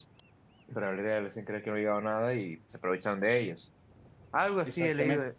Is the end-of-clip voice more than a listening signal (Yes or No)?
No